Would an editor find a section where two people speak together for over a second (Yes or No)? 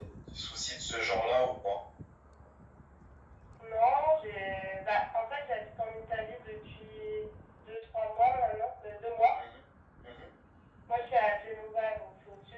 No